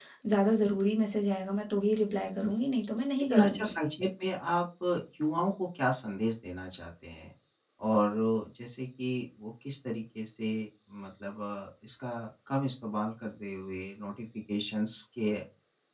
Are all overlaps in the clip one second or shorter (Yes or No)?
Yes